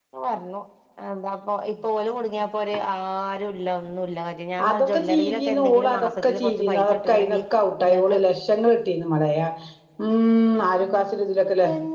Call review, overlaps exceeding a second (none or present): present